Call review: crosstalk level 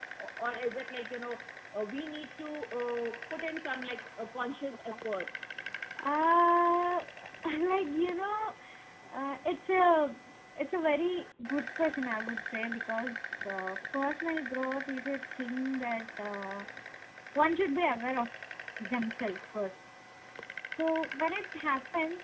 none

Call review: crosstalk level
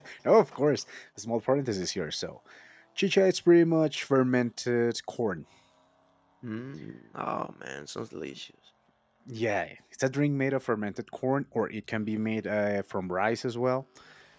none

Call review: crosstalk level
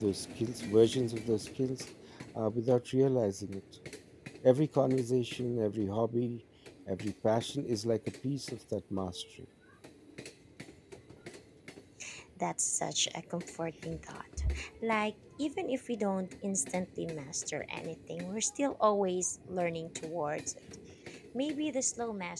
none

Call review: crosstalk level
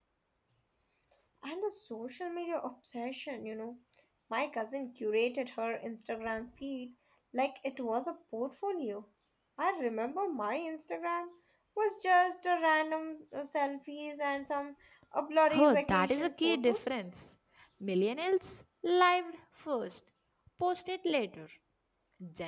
present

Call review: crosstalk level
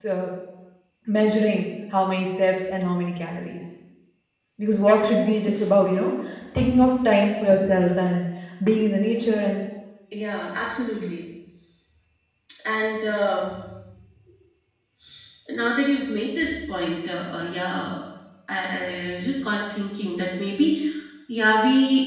none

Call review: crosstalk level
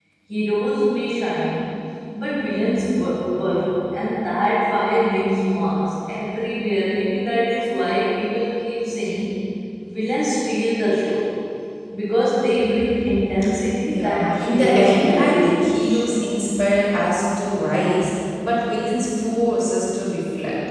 present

